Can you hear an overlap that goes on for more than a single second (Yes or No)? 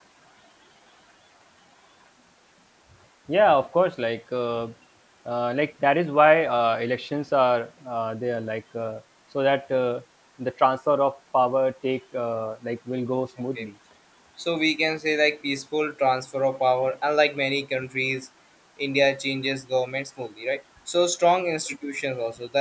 No